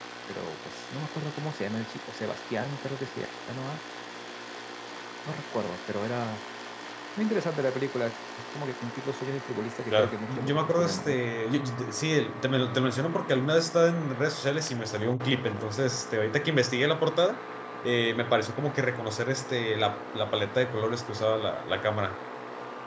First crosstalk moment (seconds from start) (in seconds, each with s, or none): 9.9 s